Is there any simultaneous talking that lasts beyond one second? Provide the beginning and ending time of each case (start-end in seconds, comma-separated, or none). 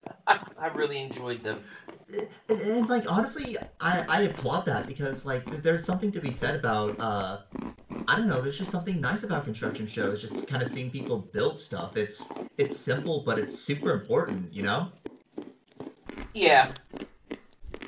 none